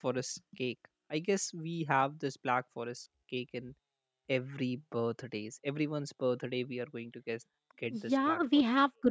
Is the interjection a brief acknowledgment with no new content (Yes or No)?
No